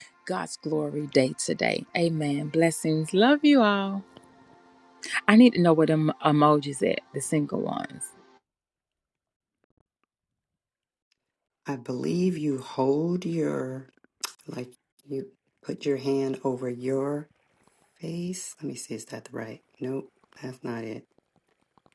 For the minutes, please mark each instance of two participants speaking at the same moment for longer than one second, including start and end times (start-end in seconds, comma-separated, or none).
none